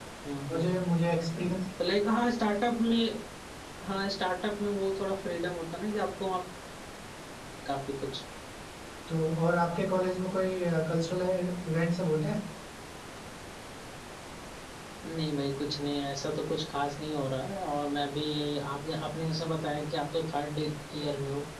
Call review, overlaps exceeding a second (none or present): none